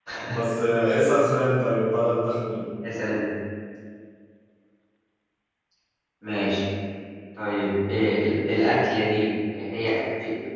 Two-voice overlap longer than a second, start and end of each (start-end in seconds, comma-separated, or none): none